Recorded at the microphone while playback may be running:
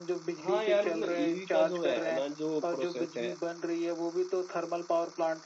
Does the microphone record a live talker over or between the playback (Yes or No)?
Yes